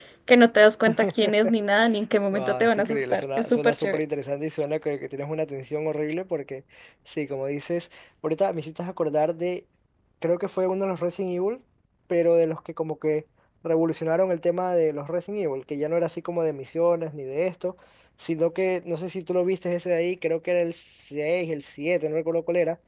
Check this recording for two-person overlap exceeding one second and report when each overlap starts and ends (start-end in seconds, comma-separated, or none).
2.3-4.0